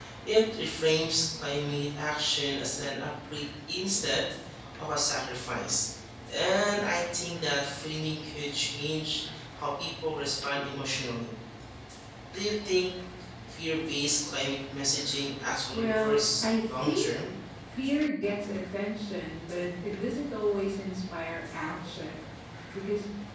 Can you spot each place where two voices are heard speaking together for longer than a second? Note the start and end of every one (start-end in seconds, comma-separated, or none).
15.7-17.1